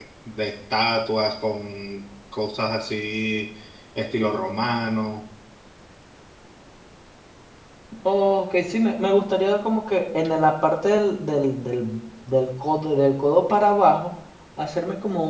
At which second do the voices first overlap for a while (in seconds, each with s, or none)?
none